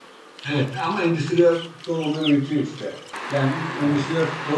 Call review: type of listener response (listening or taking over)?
listening